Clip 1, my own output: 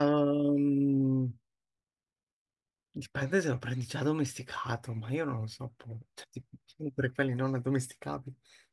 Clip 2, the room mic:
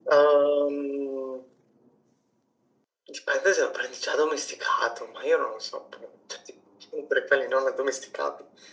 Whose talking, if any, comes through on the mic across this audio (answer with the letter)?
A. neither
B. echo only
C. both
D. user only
B